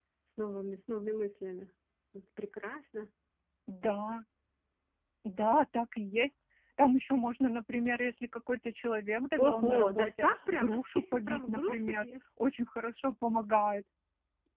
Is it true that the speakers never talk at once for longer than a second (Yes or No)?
No